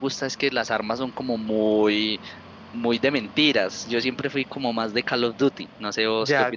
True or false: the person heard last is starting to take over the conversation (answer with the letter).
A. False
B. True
B